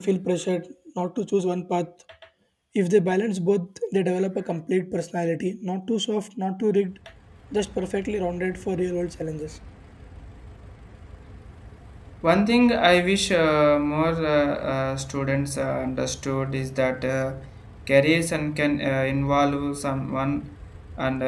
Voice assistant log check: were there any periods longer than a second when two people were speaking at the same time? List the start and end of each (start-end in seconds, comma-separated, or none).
none